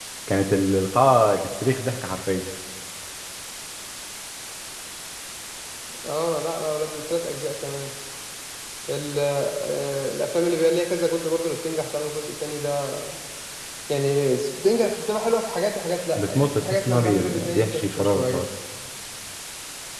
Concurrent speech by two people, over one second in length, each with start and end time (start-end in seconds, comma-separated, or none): 16.2-18.4